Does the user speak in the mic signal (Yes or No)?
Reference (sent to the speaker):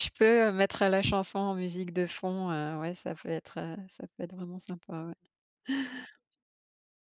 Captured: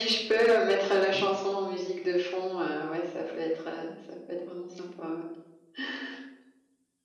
No